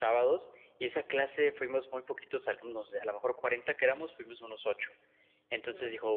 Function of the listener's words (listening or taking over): listening